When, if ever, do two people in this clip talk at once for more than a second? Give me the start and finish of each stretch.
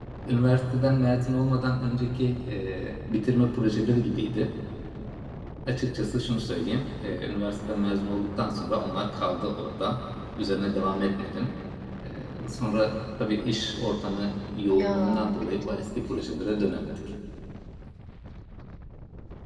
14.7-16.0

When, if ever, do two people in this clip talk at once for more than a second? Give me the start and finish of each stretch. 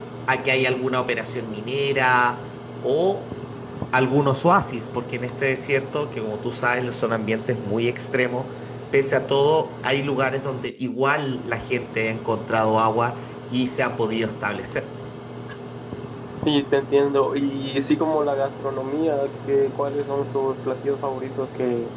none

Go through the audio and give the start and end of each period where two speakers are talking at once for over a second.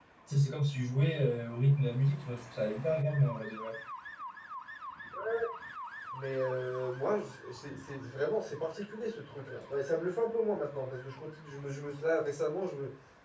none

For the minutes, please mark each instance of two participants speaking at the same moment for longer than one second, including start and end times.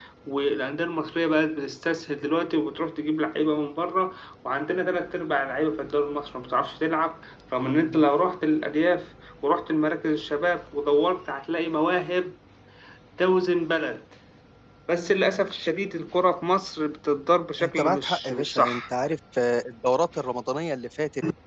17.6-18.8

